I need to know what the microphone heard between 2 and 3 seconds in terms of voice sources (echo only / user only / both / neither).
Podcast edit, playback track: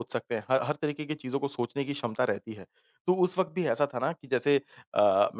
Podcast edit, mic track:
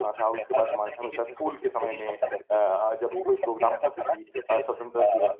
both